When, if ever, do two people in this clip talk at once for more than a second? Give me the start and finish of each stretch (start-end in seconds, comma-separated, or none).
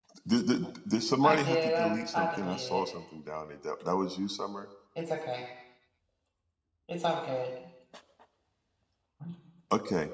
1.2-2.9